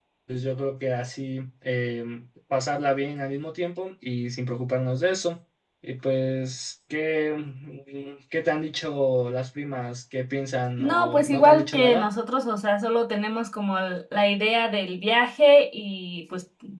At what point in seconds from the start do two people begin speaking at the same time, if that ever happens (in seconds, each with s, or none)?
10.8 s